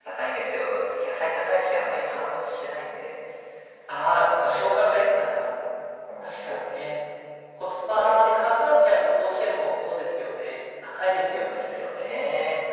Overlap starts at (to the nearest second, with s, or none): 4 s